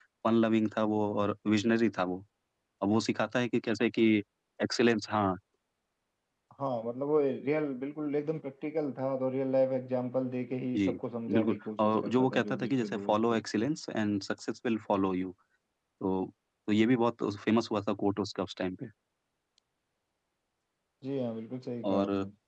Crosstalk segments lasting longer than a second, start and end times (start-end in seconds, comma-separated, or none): 11.3-13.4